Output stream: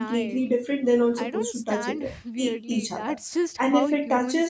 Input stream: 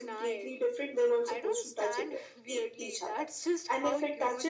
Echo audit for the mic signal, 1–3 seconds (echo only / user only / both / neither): echo only